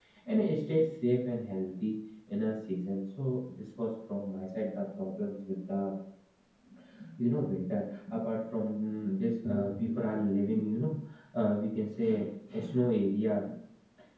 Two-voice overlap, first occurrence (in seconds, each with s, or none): none